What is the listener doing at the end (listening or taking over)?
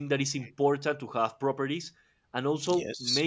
listening